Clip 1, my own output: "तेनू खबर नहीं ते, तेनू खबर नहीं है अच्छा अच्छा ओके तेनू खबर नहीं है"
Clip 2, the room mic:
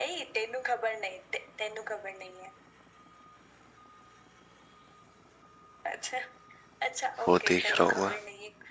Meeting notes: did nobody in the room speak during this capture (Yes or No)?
No